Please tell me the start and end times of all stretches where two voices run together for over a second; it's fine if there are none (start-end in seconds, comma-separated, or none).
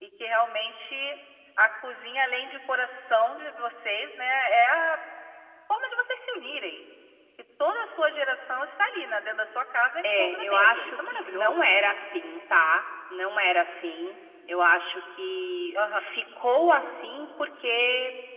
10.0-11.7